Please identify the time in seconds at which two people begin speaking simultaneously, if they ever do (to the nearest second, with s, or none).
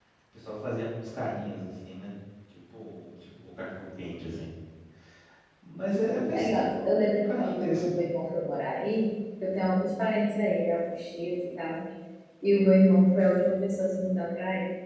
6 s